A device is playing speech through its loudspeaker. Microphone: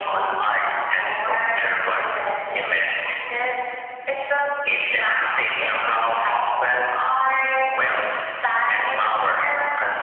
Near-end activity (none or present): none